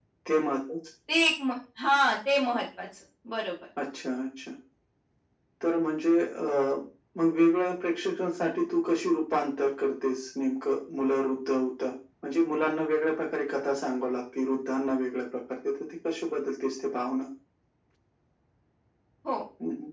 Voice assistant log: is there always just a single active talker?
Yes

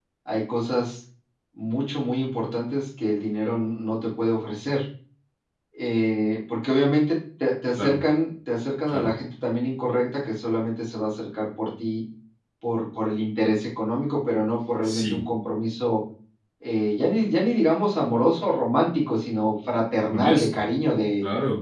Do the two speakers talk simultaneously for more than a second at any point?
No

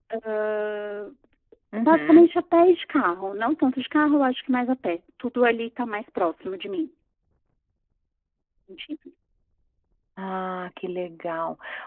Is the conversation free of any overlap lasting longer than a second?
Yes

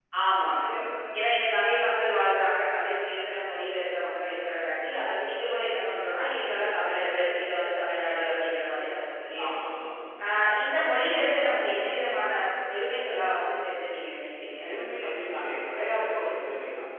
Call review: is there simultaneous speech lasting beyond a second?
No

